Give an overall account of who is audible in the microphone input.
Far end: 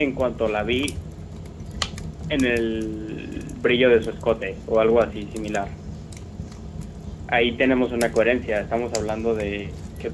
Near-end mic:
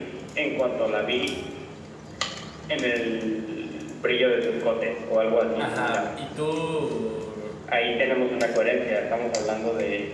both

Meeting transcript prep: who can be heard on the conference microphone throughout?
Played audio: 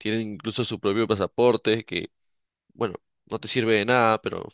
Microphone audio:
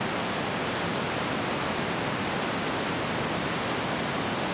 neither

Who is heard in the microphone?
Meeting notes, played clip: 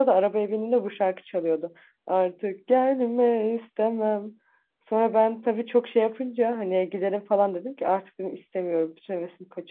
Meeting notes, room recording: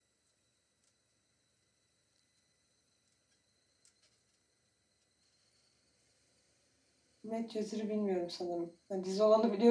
user only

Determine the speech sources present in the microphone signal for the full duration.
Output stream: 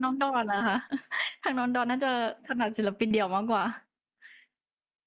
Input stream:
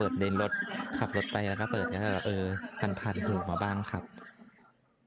both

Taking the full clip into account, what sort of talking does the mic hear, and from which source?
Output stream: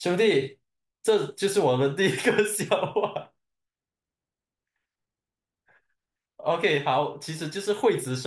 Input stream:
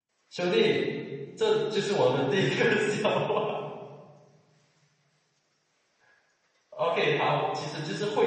echo only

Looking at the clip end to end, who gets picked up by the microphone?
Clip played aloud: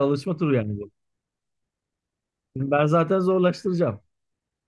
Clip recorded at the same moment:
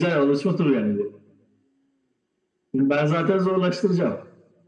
echo only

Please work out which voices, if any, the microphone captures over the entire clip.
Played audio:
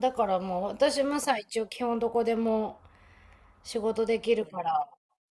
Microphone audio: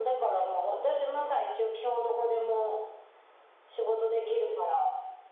echo only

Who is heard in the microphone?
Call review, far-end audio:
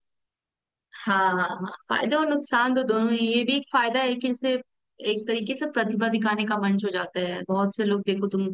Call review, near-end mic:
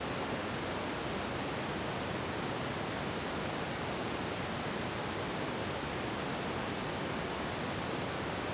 neither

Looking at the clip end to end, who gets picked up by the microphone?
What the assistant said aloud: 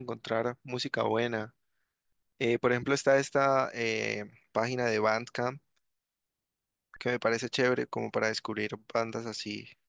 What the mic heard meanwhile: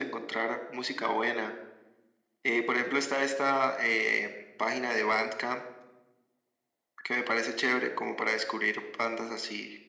echo only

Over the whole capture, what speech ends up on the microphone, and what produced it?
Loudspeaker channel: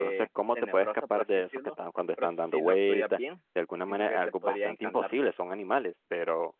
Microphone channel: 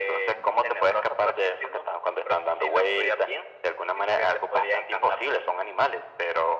echo only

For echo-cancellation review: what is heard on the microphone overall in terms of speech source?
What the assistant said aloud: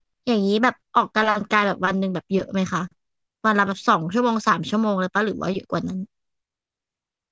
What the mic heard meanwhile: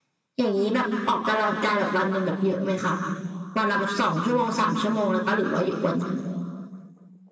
echo only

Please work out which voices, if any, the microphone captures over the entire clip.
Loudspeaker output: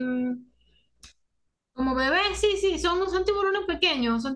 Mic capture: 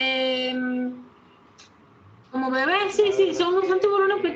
both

